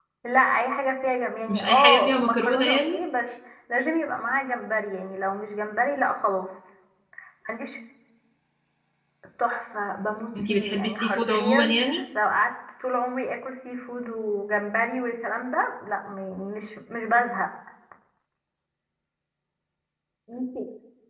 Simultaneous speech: Yes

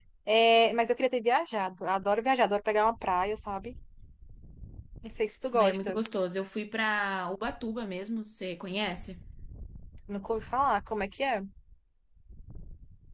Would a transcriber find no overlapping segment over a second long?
Yes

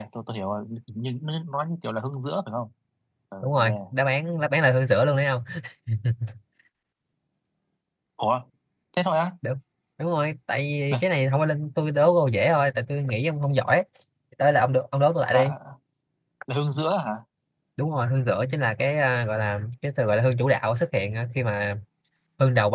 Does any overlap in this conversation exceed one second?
No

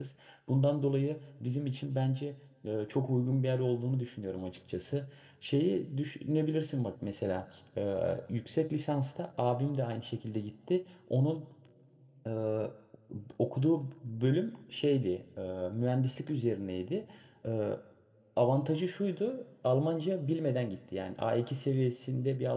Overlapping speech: No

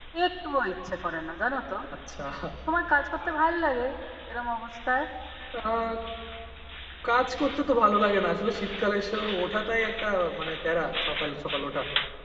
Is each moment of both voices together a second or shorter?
Yes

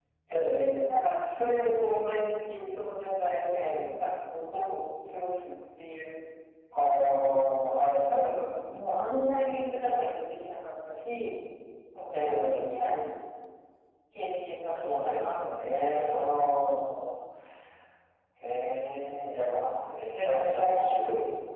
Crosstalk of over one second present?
Yes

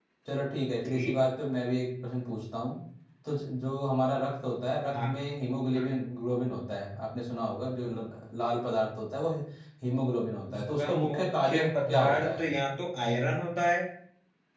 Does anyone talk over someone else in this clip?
Yes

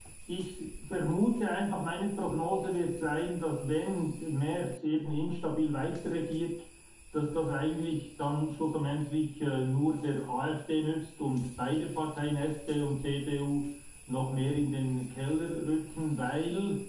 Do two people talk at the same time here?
No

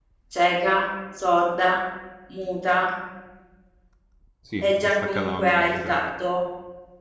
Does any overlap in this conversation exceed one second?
Yes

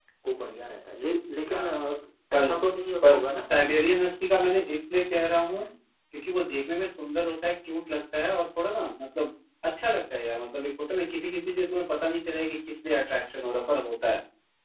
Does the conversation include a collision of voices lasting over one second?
No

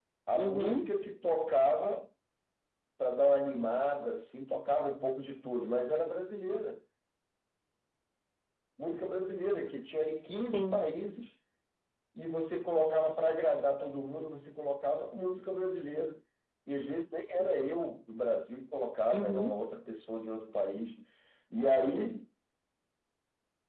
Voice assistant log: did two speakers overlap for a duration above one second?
No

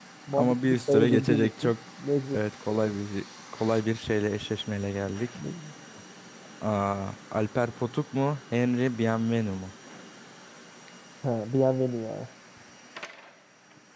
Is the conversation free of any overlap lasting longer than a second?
No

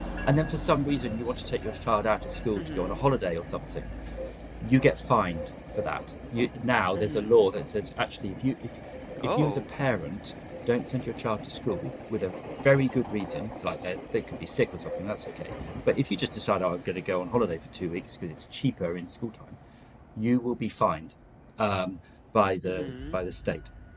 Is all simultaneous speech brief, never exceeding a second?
Yes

